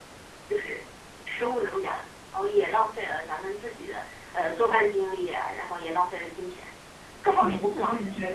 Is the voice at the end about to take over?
Yes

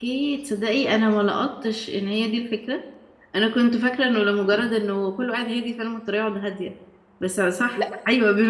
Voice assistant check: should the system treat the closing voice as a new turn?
No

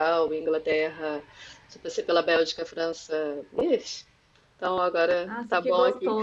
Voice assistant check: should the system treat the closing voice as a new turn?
Yes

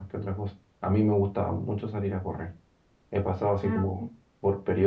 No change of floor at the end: Yes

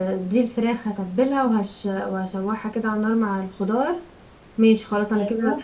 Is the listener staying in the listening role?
Yes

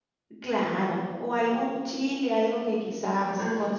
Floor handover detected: No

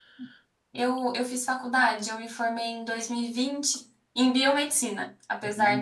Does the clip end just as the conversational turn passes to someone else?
No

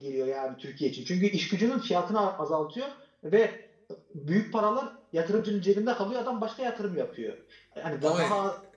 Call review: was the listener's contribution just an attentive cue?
Yes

